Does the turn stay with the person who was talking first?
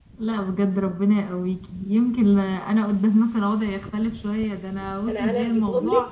No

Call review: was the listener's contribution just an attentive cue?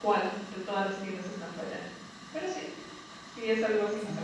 No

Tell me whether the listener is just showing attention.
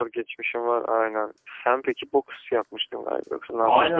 No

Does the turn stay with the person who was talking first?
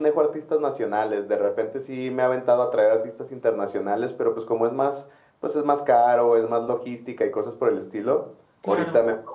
Yes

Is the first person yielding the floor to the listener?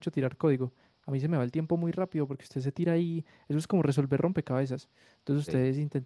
No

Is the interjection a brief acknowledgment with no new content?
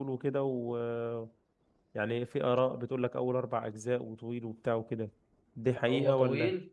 No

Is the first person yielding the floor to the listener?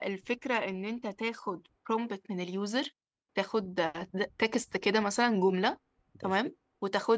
No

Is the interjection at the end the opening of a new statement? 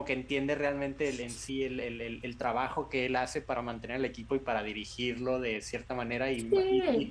No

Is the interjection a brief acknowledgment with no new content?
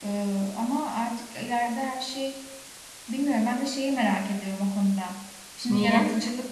Yes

